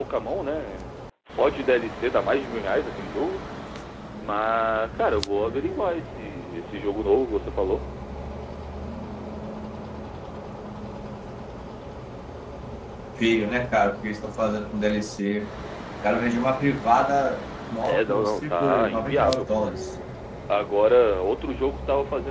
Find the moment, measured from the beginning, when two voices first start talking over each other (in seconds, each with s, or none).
17.8 s